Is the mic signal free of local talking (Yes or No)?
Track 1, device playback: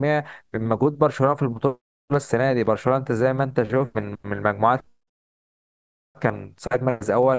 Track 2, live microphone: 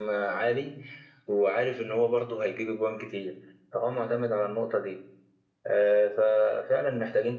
No